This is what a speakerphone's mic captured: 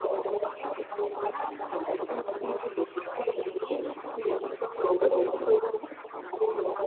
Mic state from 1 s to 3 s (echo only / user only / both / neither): echo only